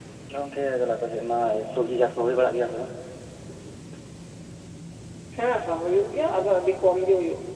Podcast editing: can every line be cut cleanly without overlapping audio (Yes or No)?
Yes